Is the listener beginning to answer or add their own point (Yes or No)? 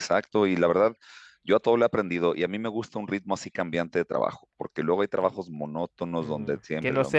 Yes